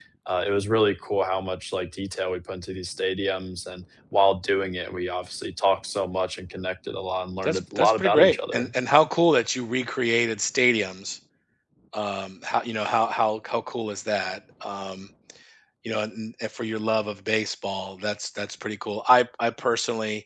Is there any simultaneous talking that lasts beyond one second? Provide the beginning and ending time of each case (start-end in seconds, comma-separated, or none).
7.4-8.7